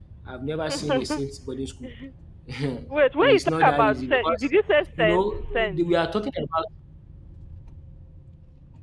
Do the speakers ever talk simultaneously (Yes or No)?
Yes